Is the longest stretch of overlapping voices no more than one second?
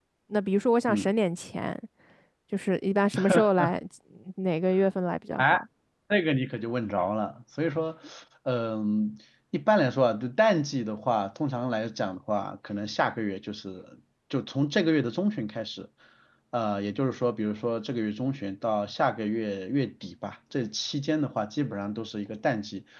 Yes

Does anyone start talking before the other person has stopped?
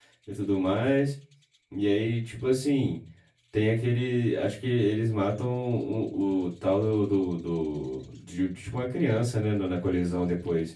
No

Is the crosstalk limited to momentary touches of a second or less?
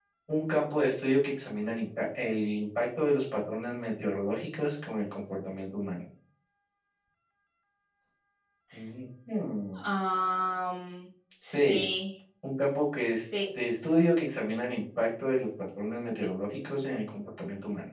Yes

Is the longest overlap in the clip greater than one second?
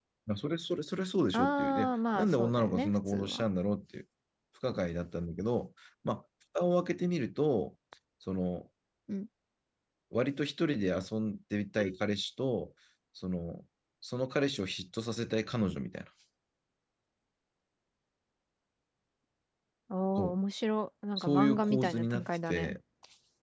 Yes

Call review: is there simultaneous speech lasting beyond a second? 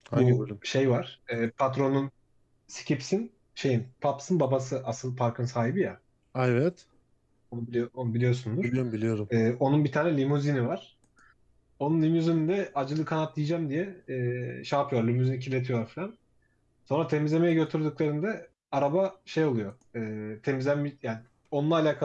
No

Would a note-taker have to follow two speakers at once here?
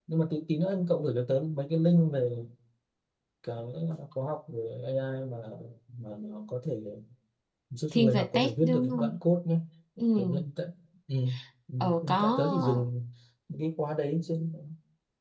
Yes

